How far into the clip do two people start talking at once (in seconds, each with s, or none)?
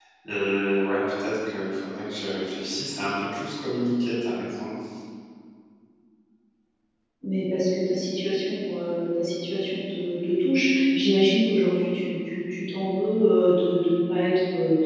none